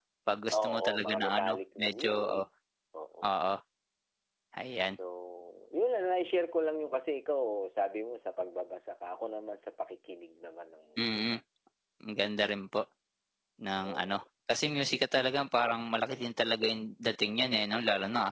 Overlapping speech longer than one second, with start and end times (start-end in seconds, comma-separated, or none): 0.6-2.4